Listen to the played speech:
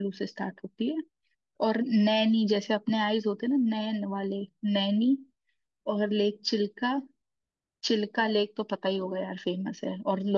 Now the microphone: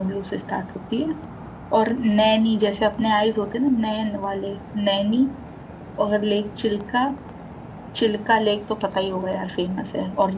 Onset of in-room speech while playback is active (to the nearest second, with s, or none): none